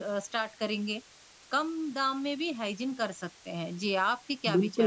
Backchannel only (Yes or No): No